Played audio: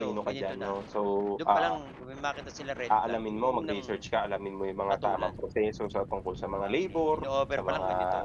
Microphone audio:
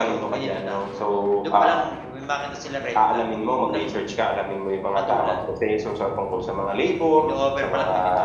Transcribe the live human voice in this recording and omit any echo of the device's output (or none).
none